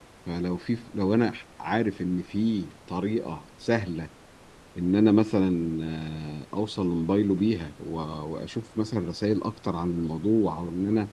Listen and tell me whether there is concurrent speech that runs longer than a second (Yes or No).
No